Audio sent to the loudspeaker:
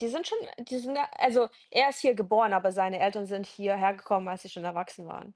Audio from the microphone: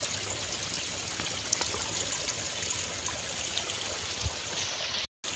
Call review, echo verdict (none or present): none